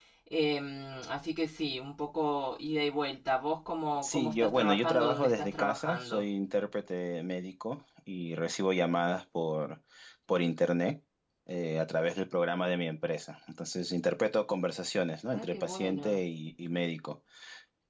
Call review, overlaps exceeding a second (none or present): present